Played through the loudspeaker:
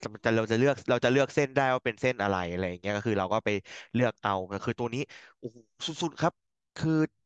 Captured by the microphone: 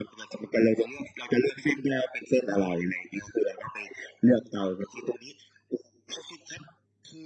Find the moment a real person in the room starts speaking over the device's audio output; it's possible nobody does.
none

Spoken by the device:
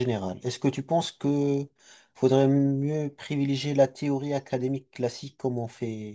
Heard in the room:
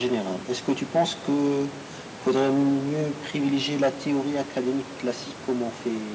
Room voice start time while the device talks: none

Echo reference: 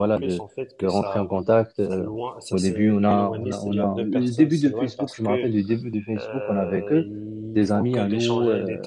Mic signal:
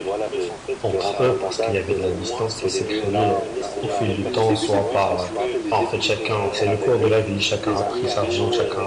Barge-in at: 1 s

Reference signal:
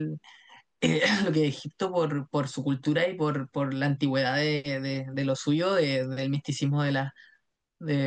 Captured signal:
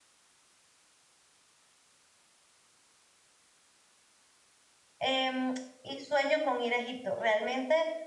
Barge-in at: 5 s

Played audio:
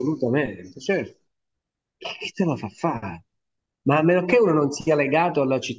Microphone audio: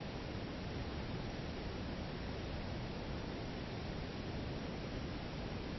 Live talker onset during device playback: none

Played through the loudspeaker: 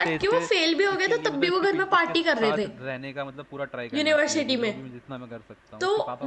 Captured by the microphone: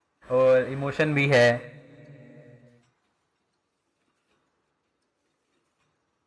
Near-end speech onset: 0 s

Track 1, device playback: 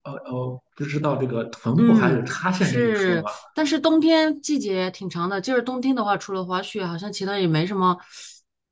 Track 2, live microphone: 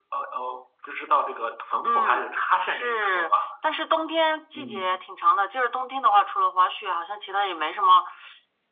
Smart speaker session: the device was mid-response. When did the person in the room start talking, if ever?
5 s

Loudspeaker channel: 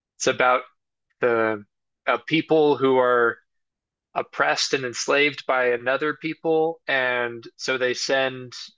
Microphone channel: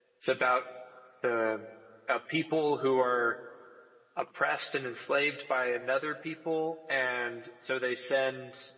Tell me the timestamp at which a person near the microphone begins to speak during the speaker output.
none

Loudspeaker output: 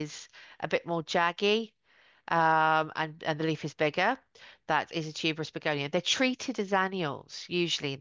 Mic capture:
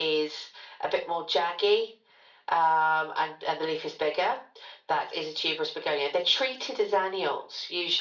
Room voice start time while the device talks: none

